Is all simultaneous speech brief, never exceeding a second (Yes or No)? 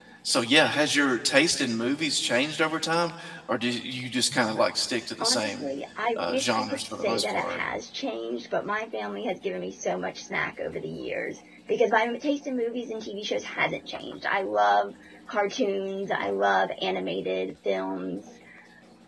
No